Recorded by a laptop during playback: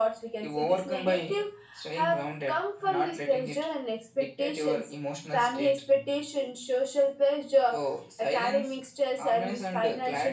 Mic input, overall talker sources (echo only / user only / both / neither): echo only